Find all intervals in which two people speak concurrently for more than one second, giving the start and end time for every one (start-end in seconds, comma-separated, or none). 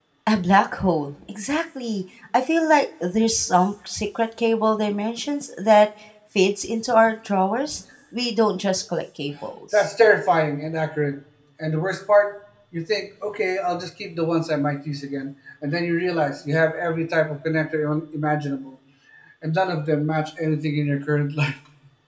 none